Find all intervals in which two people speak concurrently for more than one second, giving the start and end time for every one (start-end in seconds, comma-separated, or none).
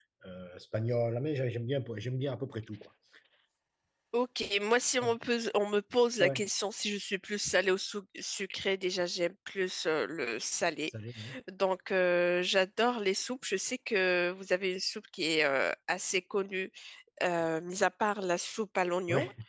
none